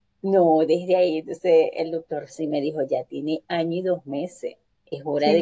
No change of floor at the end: Yes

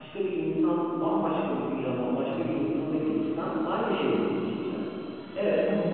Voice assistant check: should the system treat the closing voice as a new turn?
No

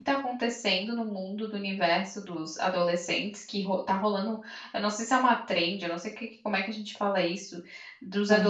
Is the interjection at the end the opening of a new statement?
No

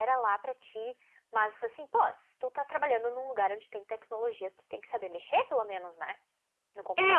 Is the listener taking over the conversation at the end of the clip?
Yes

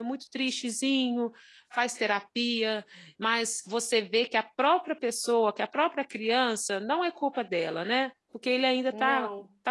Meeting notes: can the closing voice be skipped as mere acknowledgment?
Yes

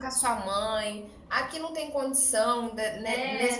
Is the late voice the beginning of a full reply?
No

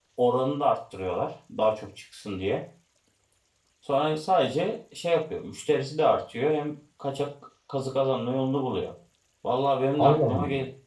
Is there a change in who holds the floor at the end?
No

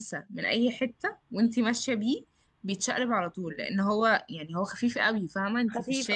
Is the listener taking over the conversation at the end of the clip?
Yes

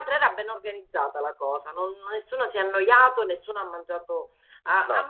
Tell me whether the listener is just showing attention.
Yes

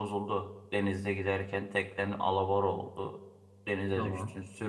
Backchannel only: Yes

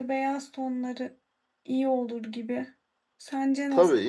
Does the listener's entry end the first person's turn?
Yes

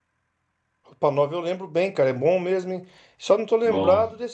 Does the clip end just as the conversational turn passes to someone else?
No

